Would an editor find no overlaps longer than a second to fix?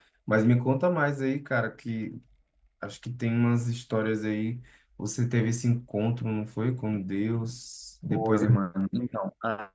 Yes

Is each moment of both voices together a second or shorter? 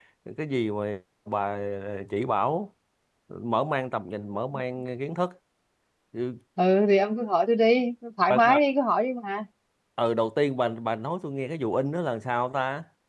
Yes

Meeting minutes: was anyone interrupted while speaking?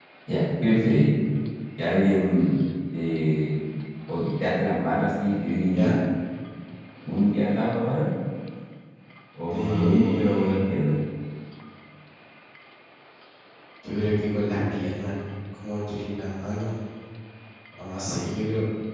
Yes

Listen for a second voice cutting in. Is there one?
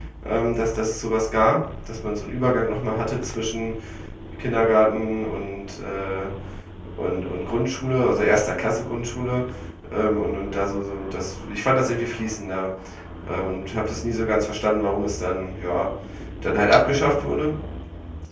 No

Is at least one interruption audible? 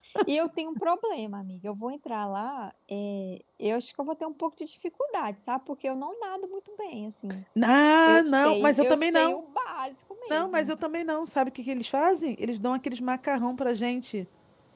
Yes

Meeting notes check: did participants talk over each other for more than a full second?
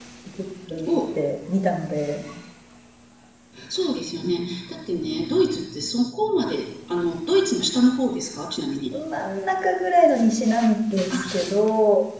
No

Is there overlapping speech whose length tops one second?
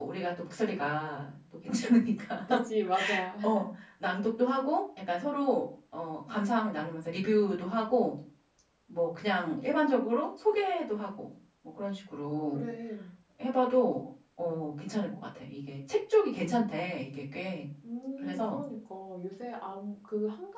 No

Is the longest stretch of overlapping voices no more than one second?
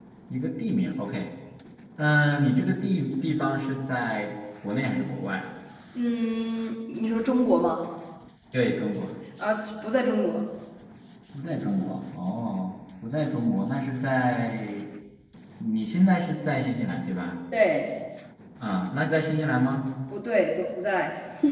Yes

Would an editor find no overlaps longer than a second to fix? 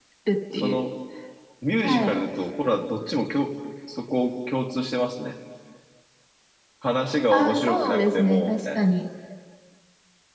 No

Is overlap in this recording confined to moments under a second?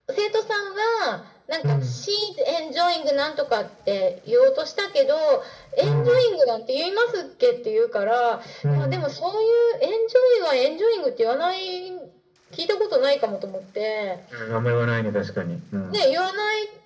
Yes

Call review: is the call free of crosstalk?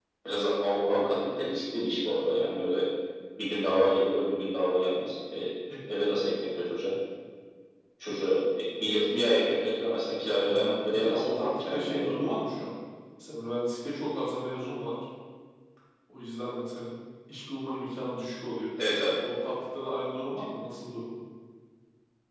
No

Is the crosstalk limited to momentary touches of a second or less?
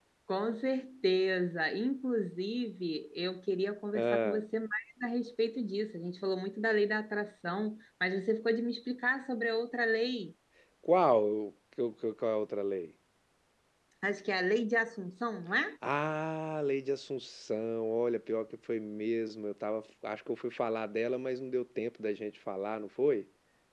Yes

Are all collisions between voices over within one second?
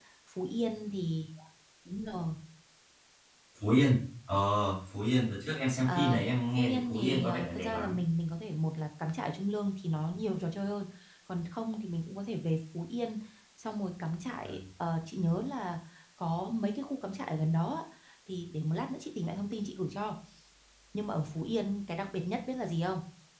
No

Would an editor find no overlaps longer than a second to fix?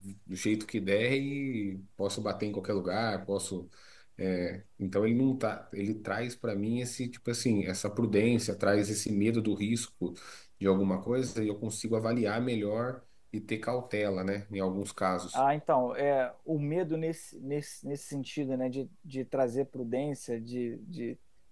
Yes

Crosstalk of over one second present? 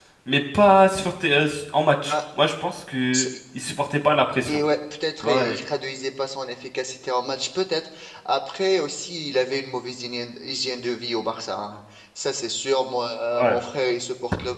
No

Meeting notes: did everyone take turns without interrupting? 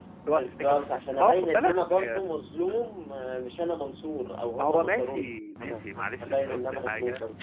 No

